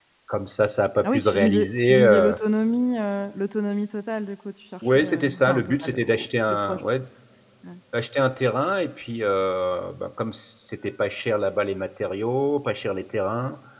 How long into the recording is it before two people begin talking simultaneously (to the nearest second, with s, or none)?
1 s